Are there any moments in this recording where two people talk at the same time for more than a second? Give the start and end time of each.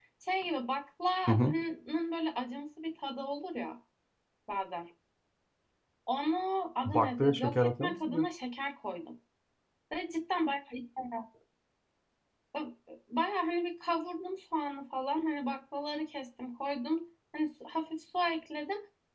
6.8-8.2

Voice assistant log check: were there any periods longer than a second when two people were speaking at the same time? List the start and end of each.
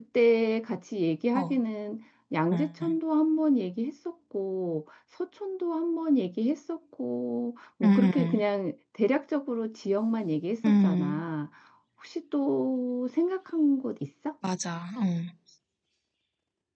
none

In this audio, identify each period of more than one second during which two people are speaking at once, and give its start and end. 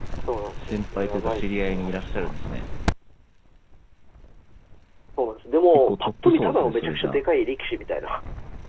0.7-2.3, 5.9-7.2

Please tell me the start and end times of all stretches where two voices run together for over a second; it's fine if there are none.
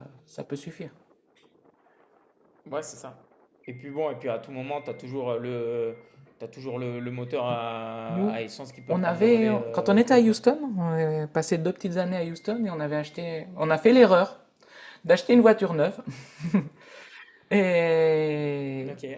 8.9-10.4

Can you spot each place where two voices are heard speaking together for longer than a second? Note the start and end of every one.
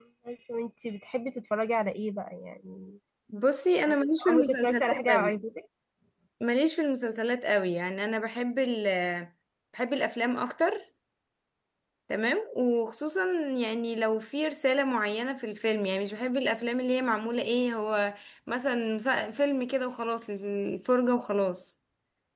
3.9-5.3

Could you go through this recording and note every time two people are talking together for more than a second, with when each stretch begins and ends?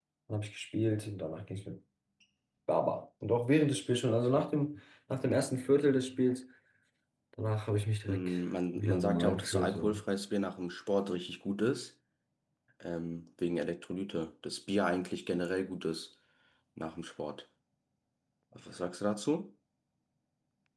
8.8-10.0

